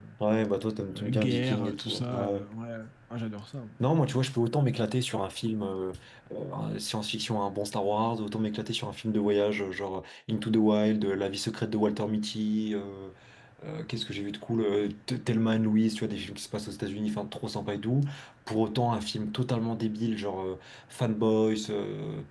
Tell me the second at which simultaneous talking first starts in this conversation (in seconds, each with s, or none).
0.9 s